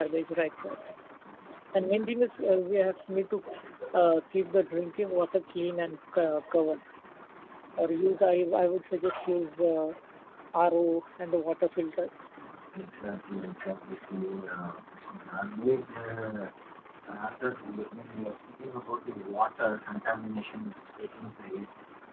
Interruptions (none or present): none